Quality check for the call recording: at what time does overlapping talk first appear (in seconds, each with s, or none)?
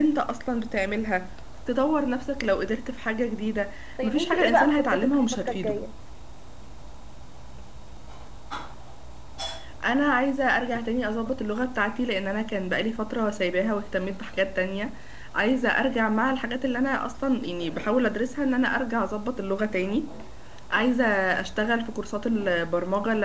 4.0 s